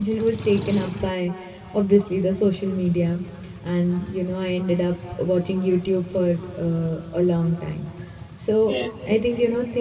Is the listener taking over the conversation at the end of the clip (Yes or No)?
No